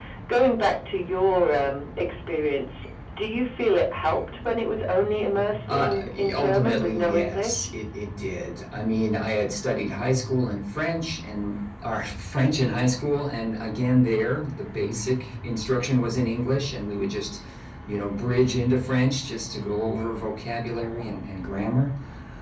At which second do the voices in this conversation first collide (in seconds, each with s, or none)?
5.7 s